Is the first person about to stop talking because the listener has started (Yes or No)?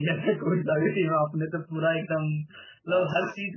No